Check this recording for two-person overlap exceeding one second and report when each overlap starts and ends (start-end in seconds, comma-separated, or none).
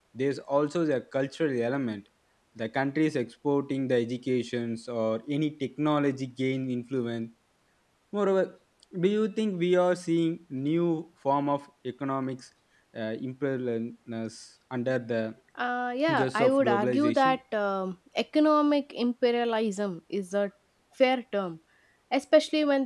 16.1-17.4